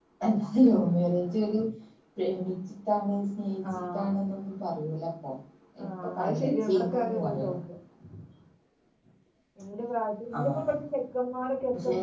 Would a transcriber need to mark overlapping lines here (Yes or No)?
Yes